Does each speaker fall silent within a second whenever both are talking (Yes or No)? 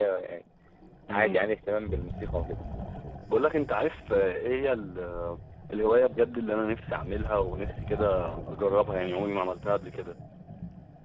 Yes